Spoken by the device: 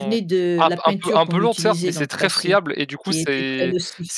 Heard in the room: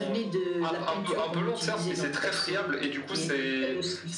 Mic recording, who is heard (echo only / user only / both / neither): echo only